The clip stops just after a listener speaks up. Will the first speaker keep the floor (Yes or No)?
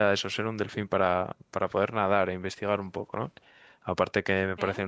Yes